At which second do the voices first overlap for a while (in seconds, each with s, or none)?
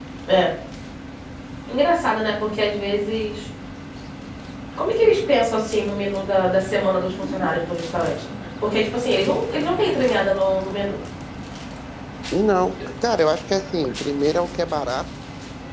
none